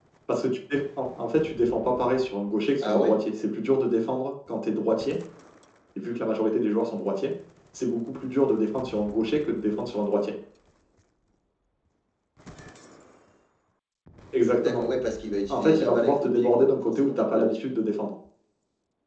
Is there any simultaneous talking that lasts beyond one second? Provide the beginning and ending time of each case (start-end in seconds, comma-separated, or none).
15.5-17.7